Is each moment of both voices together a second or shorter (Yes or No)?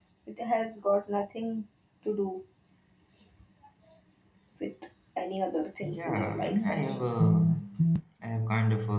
No